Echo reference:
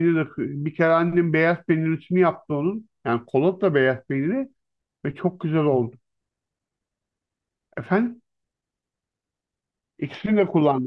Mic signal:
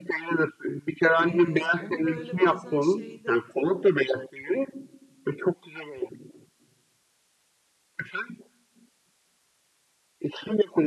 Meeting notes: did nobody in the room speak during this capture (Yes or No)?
No